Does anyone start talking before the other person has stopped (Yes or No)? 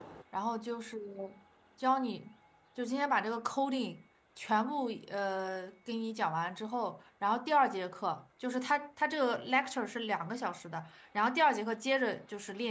No